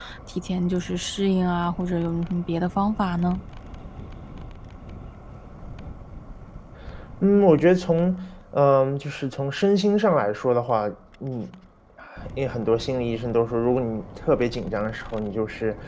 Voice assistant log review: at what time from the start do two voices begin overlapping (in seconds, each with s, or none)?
none